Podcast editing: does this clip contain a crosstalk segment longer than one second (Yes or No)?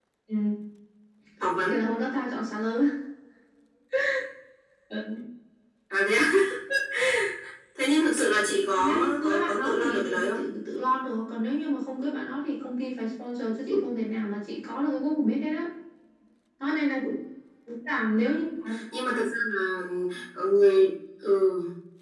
Yes